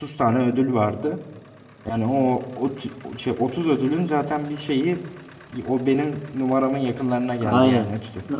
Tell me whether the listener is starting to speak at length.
Yes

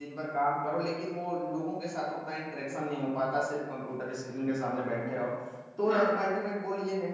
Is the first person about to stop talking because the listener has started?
No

